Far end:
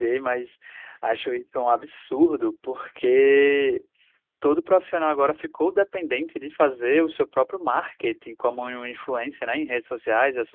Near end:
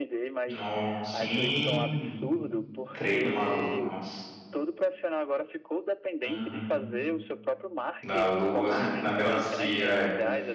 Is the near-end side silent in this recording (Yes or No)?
No